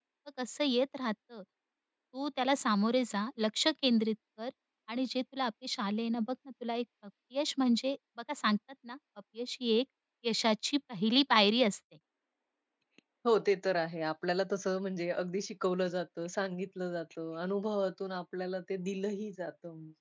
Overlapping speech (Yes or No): No